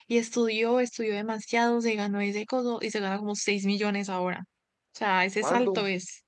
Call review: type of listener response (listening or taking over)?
listening